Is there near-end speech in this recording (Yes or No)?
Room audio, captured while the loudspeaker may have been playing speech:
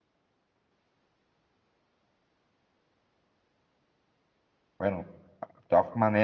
Yes